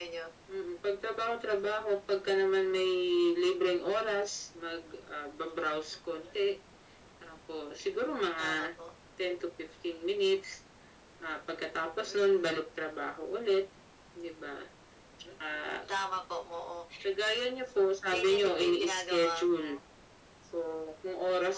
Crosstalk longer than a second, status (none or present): present